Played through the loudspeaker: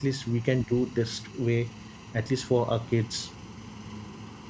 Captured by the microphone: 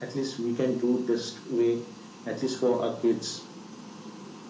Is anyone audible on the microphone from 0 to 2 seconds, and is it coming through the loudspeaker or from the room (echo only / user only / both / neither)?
echo only